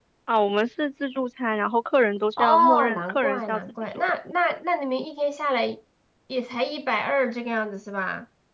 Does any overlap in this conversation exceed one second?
Yes, from 2.4 s

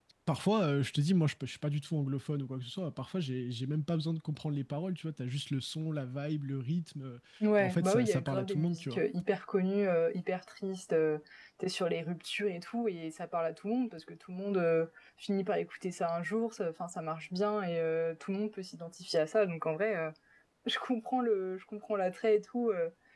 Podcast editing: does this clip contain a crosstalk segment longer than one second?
Yes, from 7.6 s

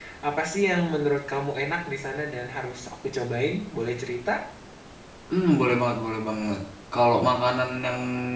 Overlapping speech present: No

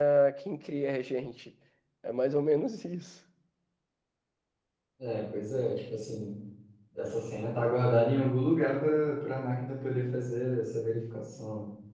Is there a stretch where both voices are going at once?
No

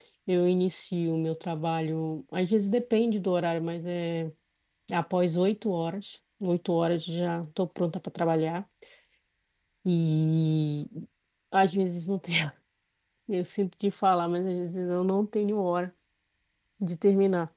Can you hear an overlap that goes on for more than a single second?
No

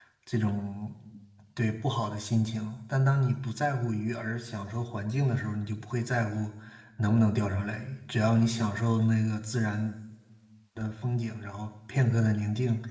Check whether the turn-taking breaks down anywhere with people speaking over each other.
No

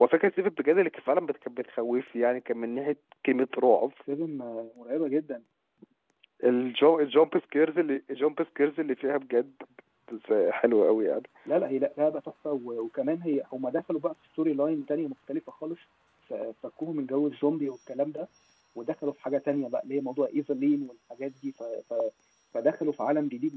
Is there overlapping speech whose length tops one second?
No

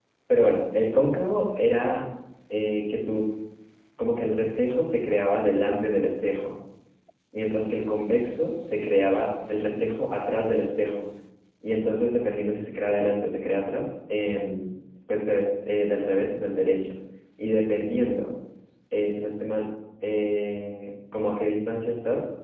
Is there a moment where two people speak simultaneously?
No

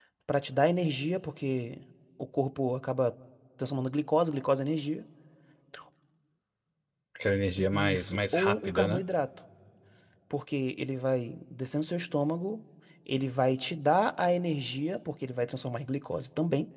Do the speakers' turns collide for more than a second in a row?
Yes, from 7.7 s

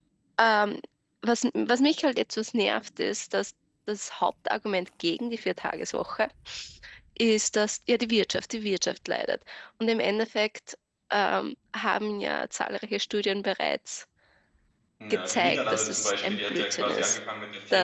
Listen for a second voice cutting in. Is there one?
Yes, from 15.3 s

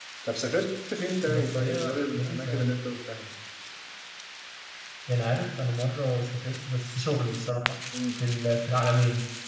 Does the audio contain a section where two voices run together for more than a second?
Yes, from 1.2 s

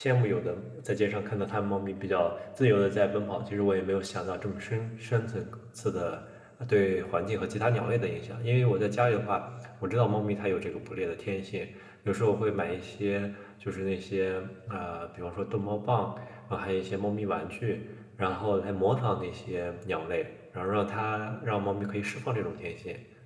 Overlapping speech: No

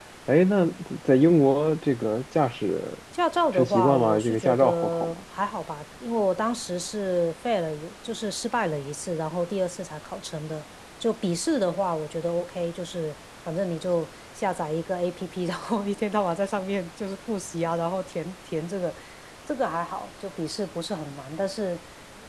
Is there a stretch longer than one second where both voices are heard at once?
Yes, from 3.5 s

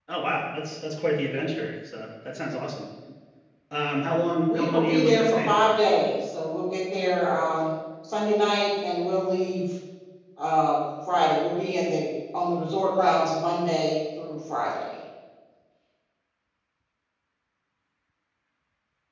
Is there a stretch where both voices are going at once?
Yes, from 4.5 s

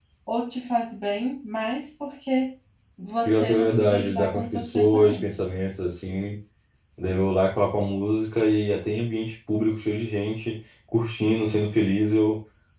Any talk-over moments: Yes, from 3.2 s

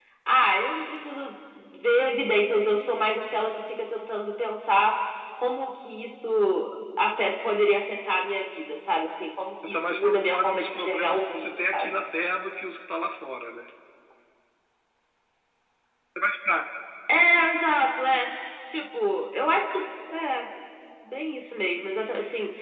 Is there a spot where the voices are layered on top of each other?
Yes, from 9.6 s

